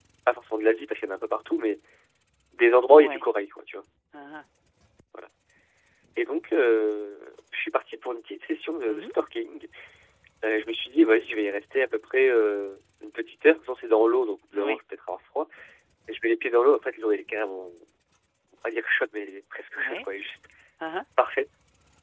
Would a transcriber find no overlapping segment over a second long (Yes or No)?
Yes